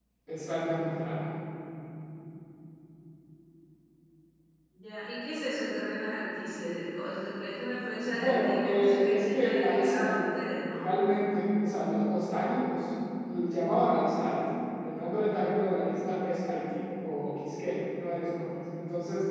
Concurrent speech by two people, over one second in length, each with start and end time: 8.1-10.2

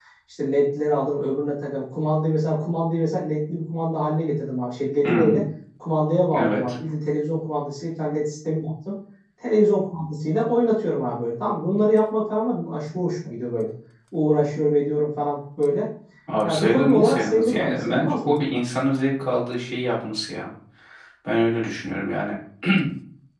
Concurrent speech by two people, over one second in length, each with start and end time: 16.4-18.4

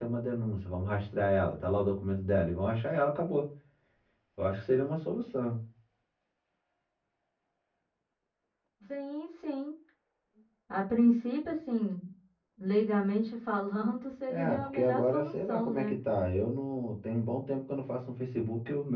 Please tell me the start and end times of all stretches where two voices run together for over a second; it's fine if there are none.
14.3-15.9

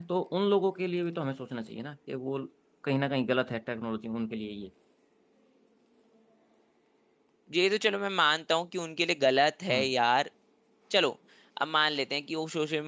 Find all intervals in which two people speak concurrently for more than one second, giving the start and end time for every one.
none

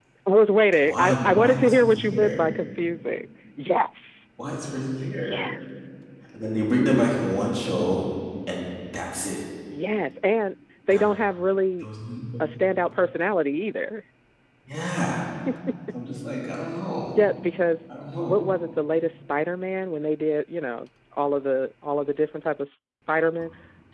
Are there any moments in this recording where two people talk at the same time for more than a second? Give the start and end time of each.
0.8-2.4

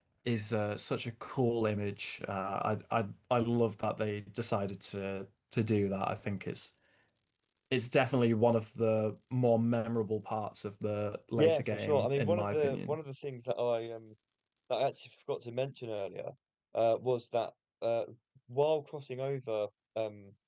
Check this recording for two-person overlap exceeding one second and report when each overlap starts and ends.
11.4-13.0

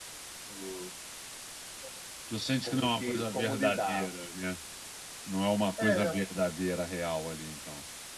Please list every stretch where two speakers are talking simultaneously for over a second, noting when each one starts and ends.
2.6-4.1

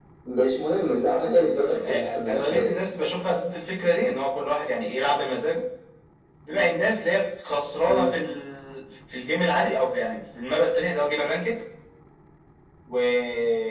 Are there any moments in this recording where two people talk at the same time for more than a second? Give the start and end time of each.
1.5-2.8

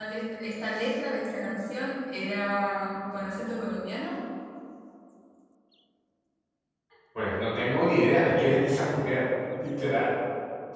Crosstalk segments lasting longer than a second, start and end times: none

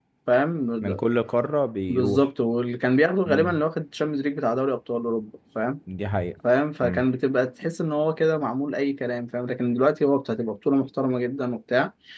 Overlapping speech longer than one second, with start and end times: none

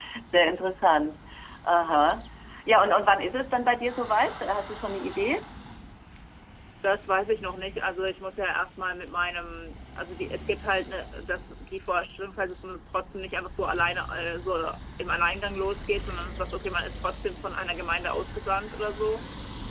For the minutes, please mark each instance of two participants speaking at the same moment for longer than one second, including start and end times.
none

